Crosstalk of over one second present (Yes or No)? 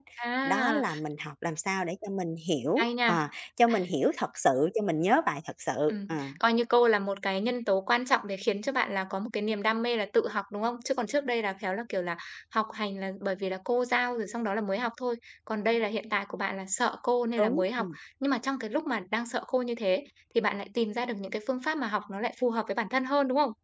No